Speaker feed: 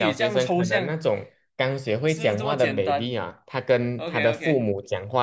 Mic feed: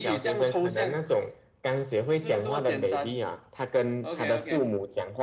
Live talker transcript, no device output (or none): none